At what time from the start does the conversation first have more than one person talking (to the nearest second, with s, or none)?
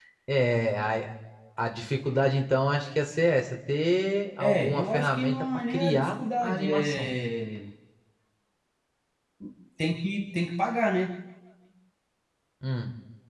4 s